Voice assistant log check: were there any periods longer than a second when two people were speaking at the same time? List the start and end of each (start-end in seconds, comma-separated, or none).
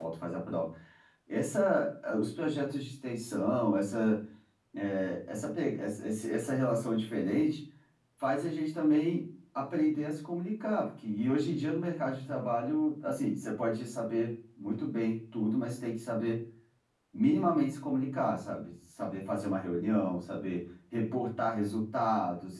none